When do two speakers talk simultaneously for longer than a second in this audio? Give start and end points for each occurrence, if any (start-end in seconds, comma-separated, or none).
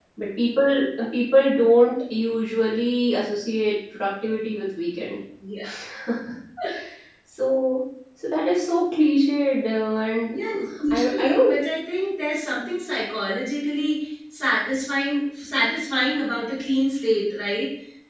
10.3-11.6